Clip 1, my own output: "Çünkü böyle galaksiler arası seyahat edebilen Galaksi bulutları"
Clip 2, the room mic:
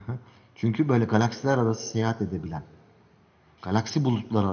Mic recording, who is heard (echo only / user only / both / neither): echo only